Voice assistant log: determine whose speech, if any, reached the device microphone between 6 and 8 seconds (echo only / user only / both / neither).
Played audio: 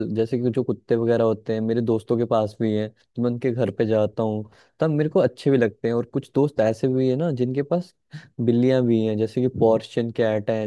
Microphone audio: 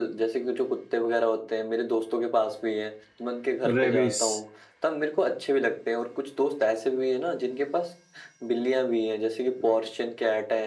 echo only